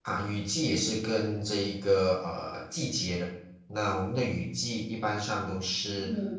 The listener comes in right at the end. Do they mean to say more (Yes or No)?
No